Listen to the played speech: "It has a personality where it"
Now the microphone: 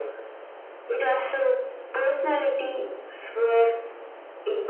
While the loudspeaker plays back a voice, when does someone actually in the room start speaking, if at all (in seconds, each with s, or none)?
none